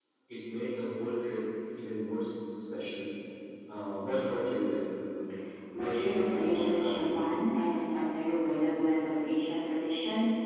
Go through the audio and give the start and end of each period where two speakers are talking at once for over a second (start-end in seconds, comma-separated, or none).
5.7-7.3